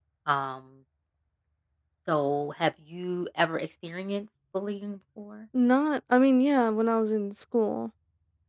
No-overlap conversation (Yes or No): Yes